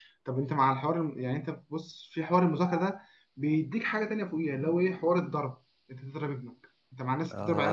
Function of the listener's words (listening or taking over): taking over